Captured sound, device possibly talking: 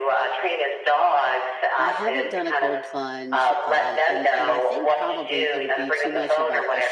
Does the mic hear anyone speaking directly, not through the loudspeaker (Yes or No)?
Yes